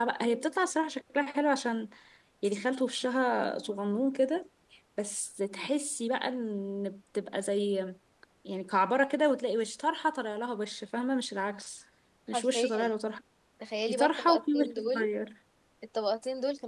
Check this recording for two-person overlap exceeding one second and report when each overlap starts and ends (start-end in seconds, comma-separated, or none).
13.9-15.1